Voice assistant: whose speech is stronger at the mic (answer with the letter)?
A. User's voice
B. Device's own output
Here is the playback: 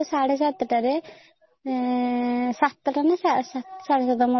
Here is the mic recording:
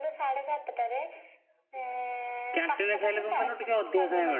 A